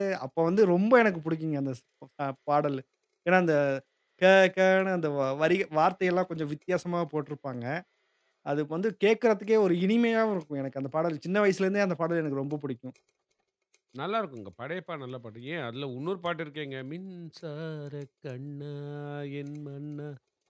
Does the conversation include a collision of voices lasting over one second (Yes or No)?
No